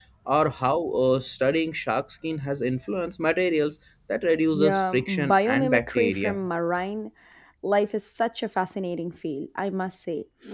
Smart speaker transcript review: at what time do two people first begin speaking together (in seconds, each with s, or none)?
4.5 s